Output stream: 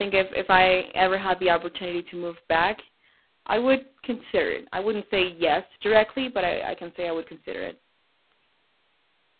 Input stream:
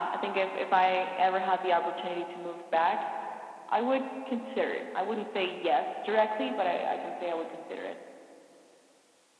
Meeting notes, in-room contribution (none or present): none